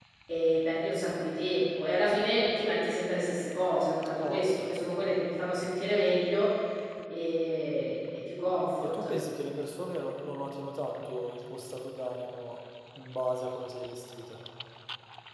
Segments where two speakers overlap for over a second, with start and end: none

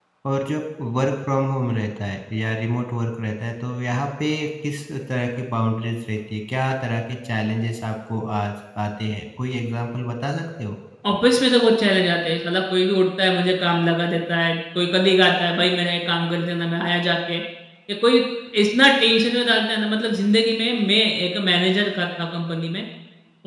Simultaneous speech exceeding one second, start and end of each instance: none

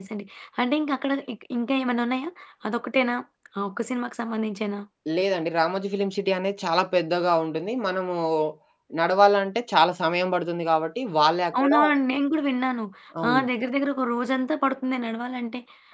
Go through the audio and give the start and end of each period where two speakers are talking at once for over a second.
none

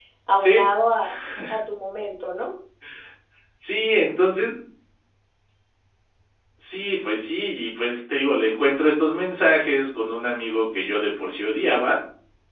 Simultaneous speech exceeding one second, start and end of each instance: none

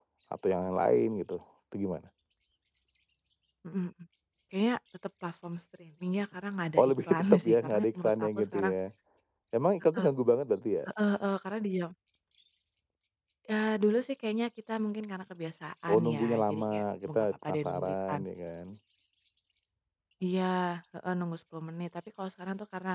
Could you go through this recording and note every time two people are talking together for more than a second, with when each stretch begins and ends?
6.8-8.7, 15.9-18.2

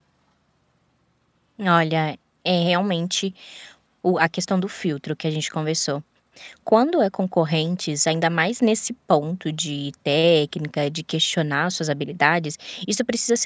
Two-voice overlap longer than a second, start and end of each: none

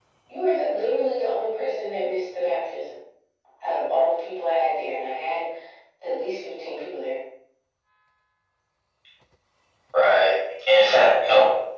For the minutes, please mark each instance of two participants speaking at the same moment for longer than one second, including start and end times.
none

